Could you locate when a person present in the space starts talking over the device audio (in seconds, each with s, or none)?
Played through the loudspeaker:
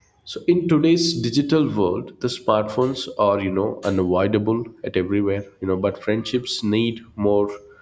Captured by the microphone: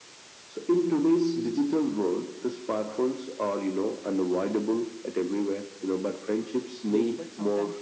6.9 s